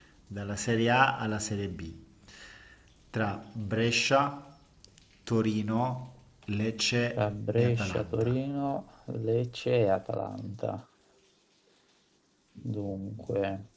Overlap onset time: 7 s

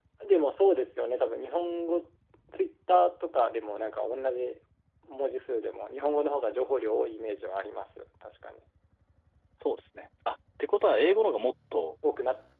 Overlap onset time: none

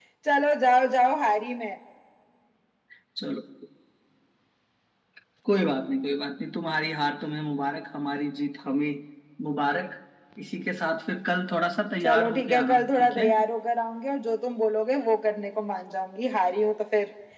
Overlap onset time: 12 s

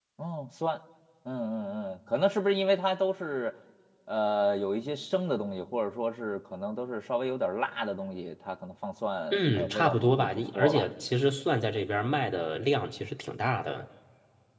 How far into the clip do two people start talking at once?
9 s

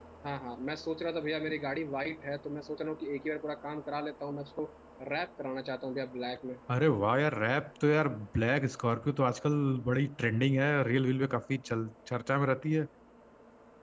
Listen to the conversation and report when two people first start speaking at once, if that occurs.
none

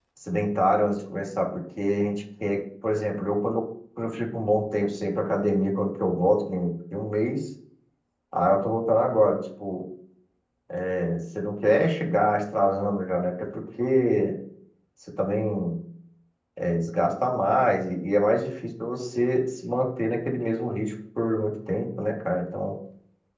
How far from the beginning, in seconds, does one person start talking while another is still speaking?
none

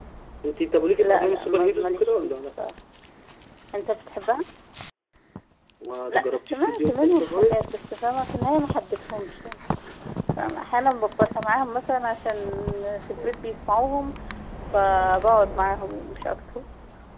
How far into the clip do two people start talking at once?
1 s

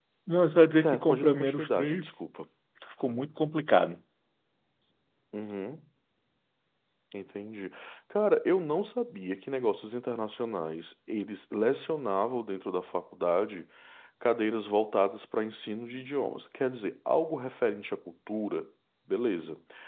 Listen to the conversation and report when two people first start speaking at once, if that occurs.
1 s

